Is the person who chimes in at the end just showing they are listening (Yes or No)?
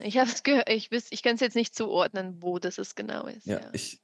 No